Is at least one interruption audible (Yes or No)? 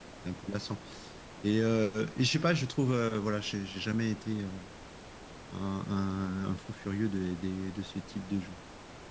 No